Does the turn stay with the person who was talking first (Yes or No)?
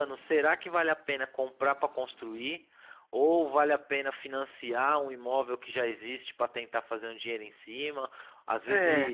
Yes